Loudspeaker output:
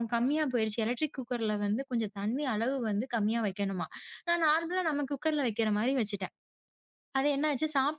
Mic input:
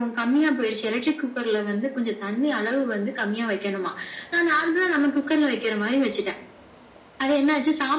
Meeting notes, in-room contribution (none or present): none